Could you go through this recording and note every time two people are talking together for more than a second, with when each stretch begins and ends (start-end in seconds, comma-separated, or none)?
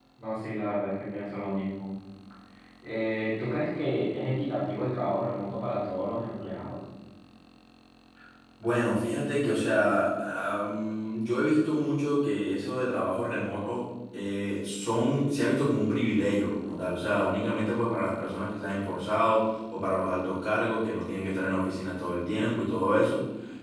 none